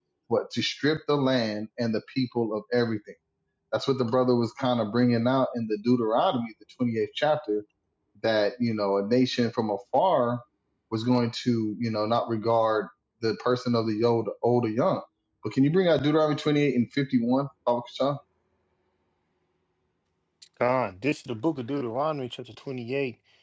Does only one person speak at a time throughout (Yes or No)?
Yes